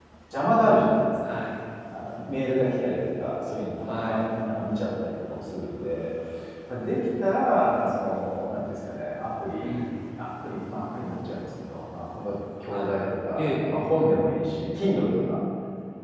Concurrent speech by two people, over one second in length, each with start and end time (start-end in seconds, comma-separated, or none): none